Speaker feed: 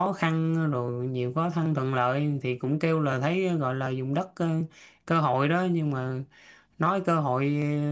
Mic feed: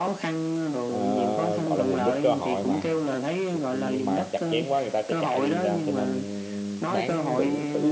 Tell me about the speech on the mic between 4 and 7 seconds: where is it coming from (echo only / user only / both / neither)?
both